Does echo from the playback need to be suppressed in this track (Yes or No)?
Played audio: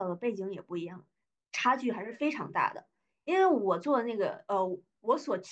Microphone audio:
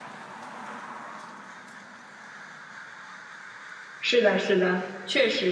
No